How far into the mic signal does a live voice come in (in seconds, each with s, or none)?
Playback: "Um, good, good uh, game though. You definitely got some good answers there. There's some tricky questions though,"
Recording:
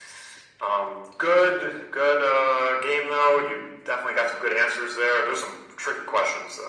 none